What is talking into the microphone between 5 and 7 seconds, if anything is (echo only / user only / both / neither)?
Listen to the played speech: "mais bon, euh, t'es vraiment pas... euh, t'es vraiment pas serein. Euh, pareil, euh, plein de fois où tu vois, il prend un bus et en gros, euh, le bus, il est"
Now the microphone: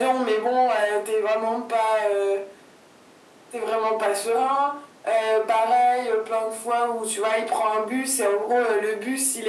echo only